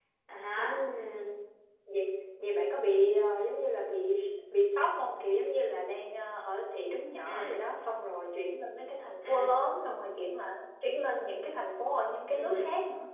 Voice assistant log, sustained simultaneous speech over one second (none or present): none